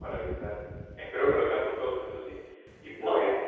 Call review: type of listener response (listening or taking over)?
listening